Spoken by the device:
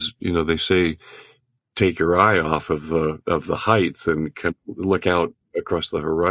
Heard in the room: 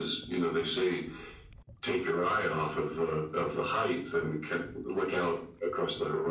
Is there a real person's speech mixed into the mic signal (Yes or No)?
No